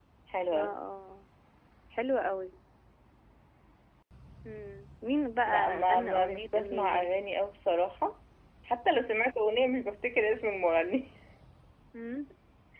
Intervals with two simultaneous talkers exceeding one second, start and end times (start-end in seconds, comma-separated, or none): 5.4-7.0